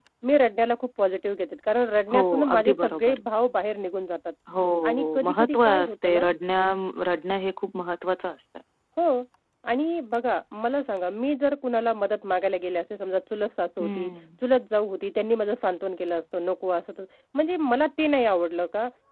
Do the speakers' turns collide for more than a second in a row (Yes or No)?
Yes